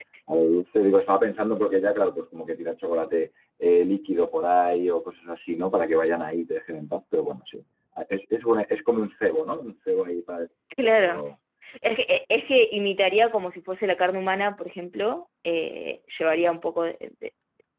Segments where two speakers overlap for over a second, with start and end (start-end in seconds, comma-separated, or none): none